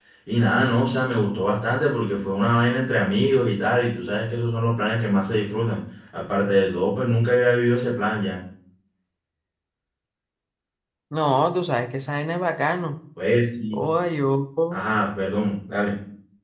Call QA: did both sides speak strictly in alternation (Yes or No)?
Yes